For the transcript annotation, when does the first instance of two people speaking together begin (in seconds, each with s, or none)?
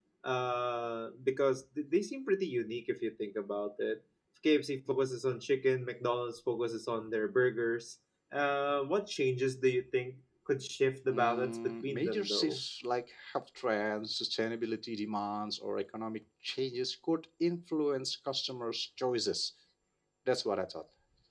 11.1 s